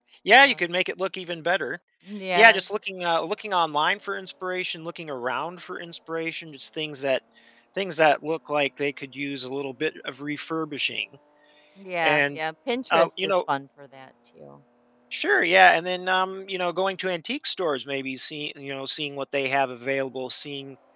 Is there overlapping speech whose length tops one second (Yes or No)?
No